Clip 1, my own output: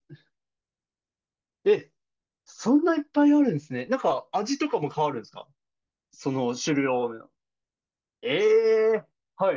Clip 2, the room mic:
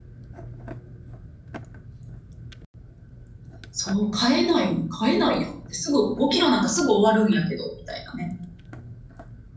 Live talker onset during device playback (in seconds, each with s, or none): 3.7 s